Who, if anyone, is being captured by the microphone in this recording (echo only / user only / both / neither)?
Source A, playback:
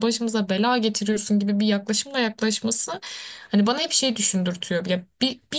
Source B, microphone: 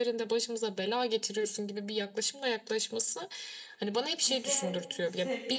both